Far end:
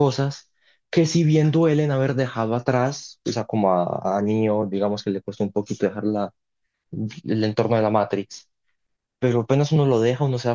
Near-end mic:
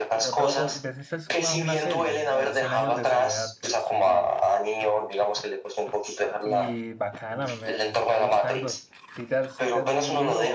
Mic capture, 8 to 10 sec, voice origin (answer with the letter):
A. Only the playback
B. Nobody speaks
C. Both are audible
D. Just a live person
C